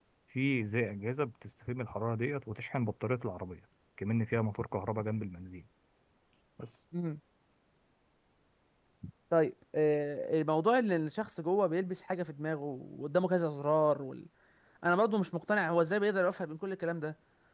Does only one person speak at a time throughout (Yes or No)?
Yes